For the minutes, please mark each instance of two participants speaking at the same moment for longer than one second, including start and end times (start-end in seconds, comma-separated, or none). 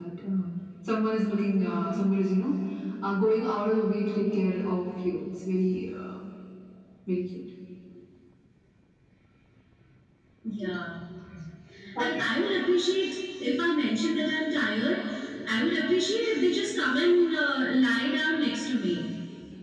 none